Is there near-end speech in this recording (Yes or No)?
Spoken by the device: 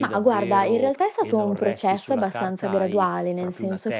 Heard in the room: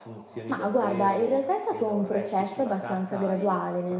No